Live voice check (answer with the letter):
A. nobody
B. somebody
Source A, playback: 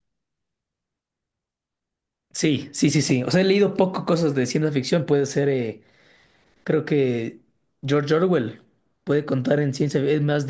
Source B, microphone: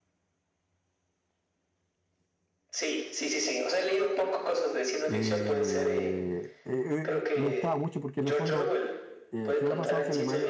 B